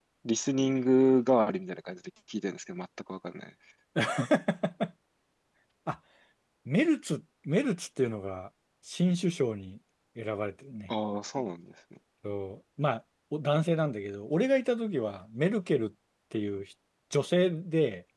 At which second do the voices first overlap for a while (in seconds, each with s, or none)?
none